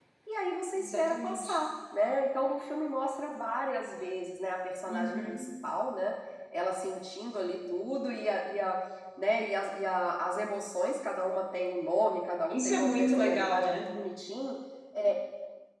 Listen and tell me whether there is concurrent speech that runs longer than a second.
Yes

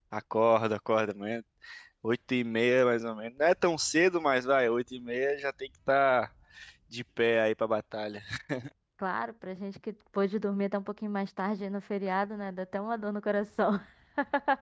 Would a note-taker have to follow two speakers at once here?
No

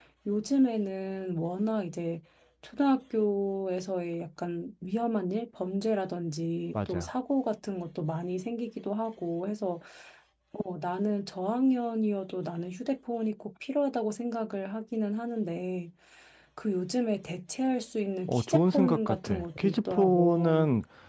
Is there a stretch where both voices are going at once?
Yes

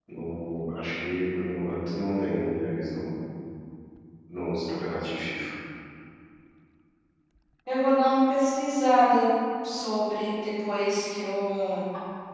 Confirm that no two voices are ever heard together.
Yes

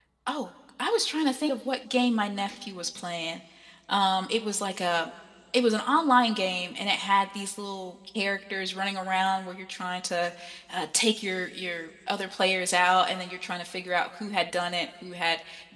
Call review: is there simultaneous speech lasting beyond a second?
No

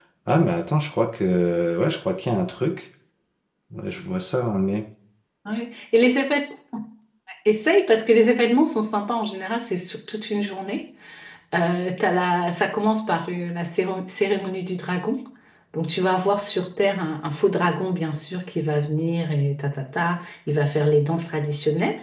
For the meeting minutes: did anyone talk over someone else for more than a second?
No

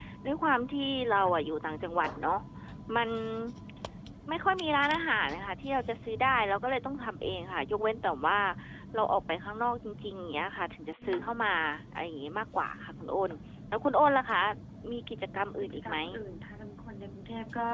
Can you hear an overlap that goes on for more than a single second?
No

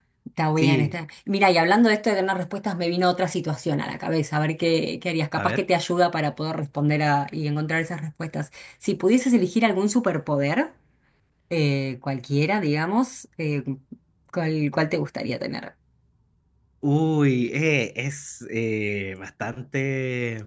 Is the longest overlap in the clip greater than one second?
No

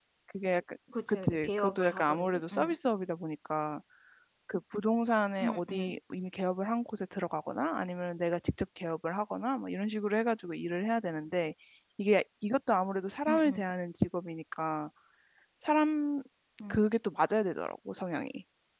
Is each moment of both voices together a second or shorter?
No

